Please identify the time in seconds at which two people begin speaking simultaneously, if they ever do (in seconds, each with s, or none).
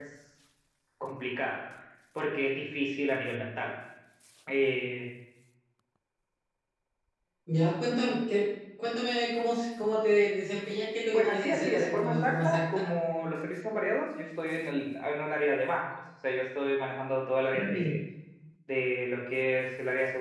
11.1 s